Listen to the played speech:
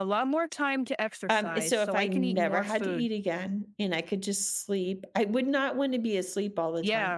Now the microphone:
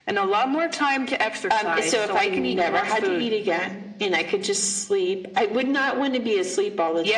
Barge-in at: none

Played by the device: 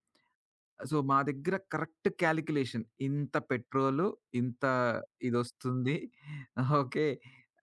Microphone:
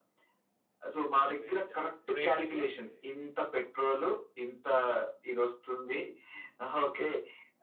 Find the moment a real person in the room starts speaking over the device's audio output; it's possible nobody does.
1.2 s

